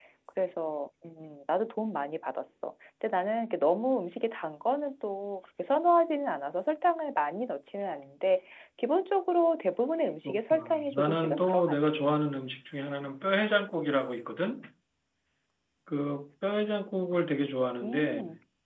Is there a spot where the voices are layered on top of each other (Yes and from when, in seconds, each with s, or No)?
Yes, from 10.2 s